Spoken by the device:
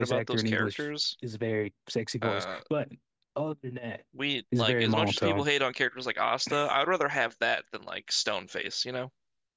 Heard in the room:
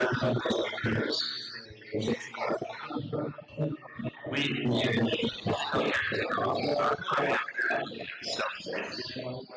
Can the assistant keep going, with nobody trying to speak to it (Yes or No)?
Yes